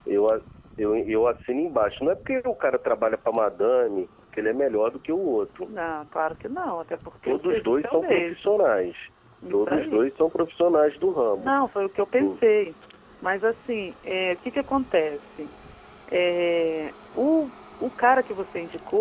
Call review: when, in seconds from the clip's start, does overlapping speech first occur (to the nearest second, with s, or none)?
7 s